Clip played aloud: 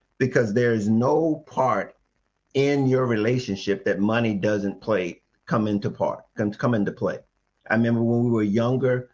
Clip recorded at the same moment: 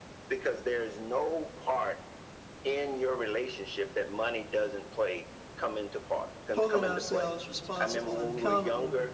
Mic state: both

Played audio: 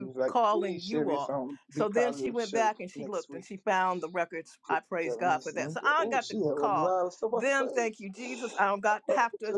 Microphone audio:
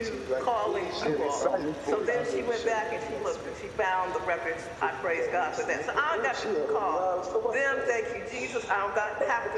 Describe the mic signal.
both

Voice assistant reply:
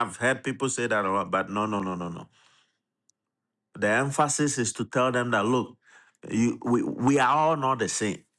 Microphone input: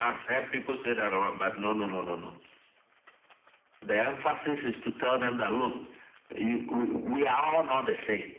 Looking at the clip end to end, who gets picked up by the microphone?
echo only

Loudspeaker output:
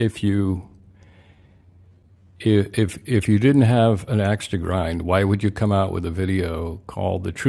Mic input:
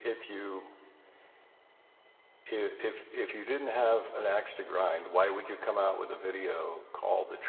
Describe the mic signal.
echo only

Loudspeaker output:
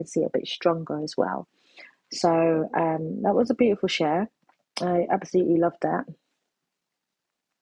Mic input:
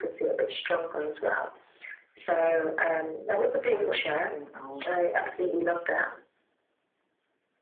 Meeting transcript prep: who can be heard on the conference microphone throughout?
both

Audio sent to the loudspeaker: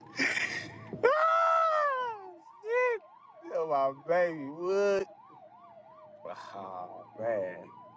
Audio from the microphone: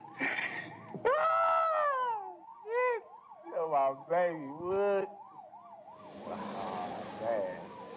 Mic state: echo only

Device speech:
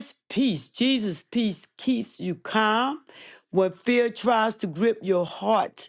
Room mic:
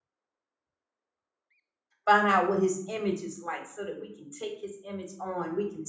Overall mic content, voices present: user only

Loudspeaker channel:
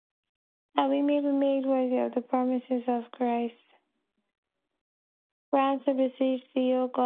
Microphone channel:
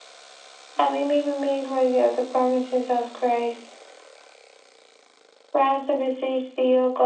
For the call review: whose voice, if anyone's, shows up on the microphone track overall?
echo only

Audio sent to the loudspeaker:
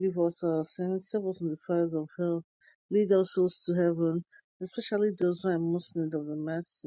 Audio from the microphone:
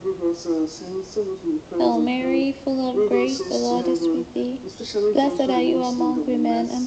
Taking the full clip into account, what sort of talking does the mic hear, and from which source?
both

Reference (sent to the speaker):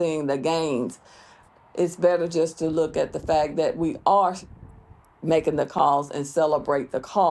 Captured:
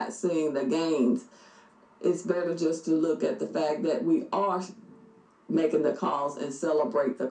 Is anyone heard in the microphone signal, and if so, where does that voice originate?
echo only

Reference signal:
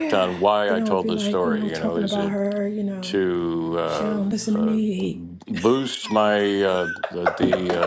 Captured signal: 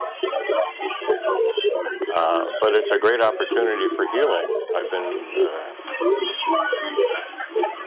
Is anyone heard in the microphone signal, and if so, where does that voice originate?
both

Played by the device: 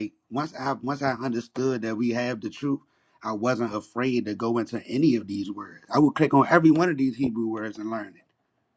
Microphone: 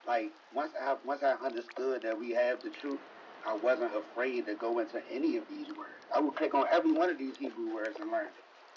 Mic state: echo only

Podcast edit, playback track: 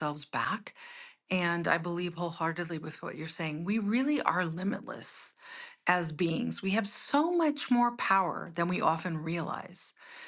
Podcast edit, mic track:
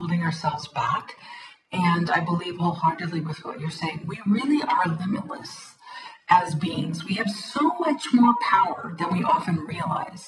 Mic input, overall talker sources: echo only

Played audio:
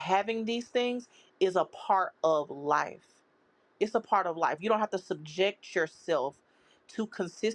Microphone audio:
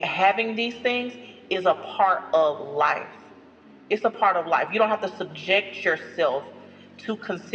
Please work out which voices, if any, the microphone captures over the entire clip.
echo only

